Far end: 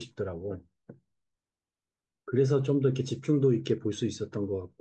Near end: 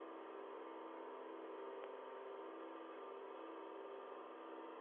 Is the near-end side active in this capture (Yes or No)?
No